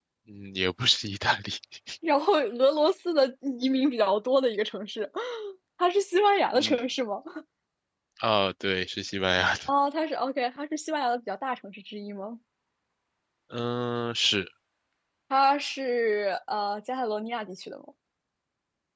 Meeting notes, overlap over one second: none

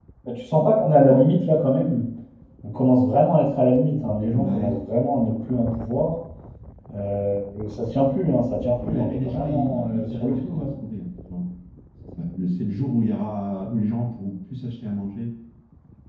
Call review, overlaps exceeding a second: present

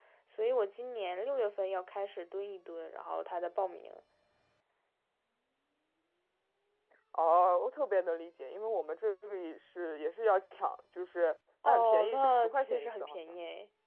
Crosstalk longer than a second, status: present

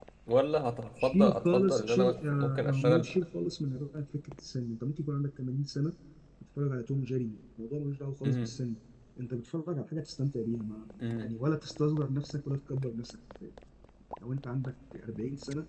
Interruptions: present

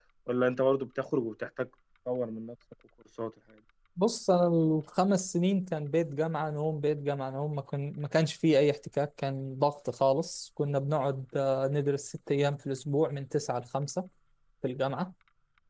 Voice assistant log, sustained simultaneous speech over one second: none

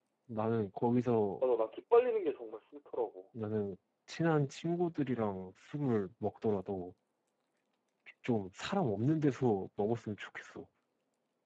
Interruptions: none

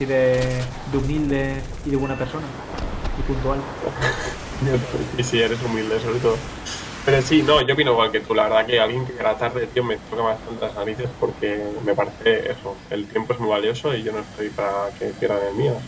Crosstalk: none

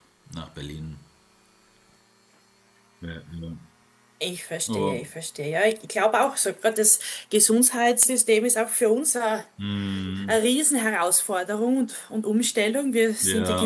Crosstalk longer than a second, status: none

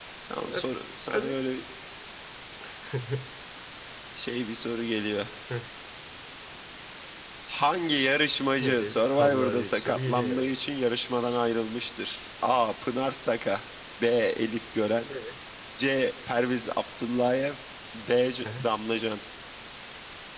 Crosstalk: present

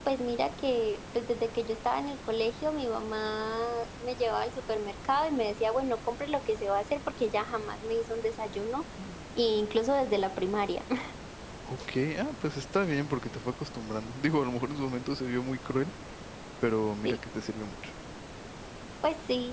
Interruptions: none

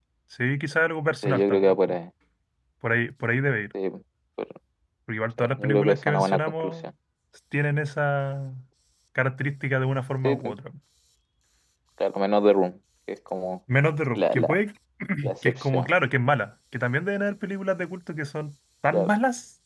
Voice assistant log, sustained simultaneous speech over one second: present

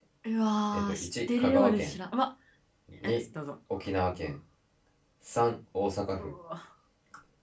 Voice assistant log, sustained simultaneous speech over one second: present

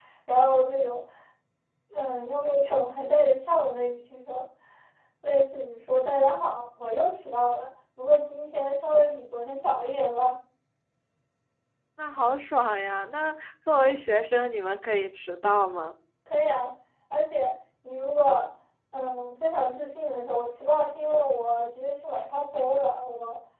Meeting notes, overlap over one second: none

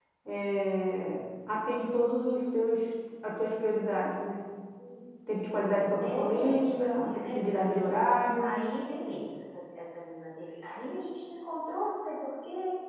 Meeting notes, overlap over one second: present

